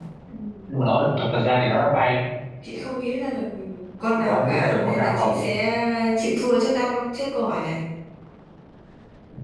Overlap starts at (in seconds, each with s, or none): 4.2 s